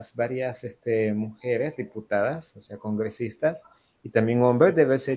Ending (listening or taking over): listening